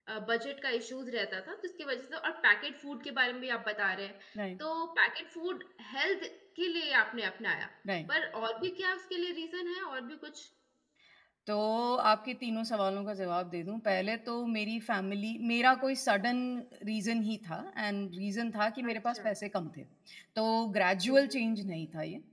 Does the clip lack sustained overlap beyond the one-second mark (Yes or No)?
Yes